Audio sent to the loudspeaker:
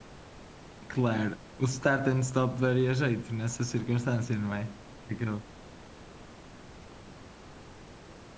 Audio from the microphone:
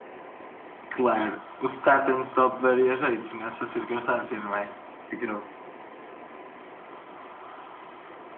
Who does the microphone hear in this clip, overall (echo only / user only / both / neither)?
echo only